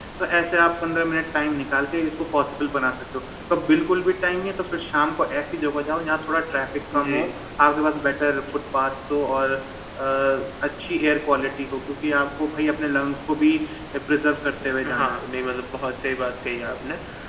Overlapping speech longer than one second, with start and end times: none

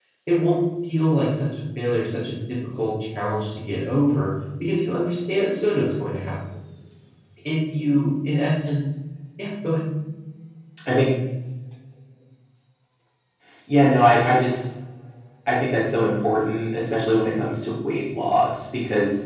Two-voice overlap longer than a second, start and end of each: none

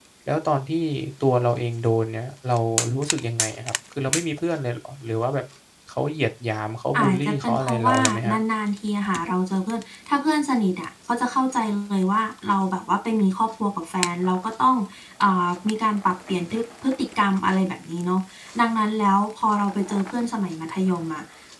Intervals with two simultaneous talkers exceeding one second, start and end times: 7.0-8.4

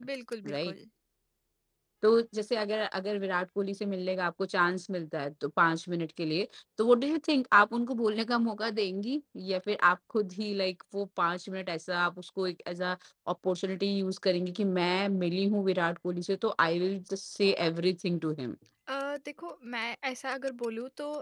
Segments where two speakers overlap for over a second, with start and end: none

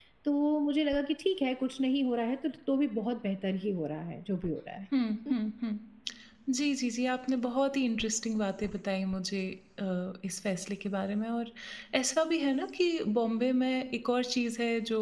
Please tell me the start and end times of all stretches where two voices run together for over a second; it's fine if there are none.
none

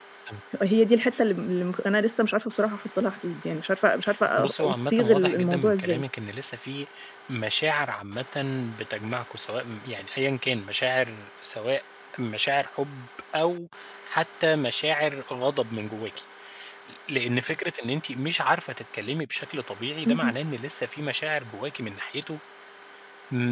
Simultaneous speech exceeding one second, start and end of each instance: 4.4-6.0

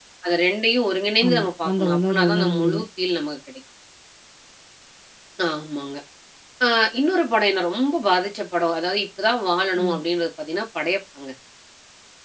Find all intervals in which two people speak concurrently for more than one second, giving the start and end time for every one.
1.3-2.9

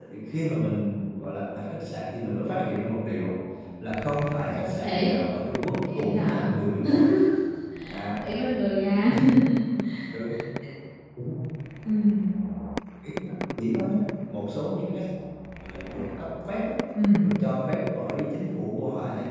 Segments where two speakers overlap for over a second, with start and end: none

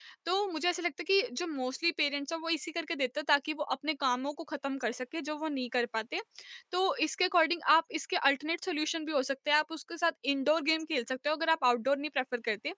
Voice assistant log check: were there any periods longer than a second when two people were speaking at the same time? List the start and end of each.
none

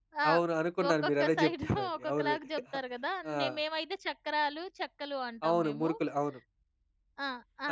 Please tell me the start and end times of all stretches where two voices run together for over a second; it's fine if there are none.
0.9-2.3

